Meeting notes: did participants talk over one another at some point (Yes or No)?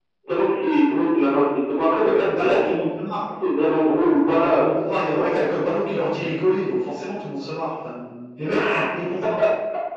Yes